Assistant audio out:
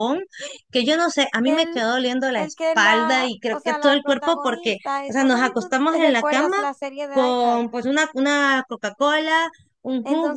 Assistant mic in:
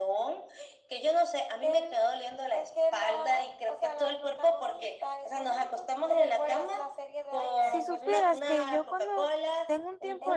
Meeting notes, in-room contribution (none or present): present